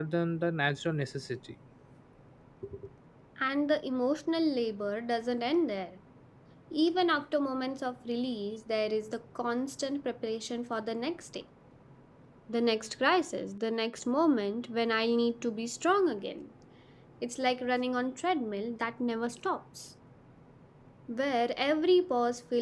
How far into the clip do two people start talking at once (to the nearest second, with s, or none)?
none